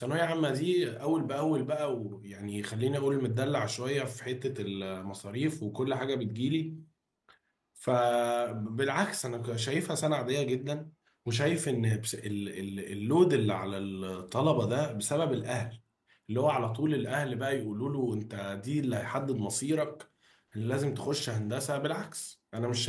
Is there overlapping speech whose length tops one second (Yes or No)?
No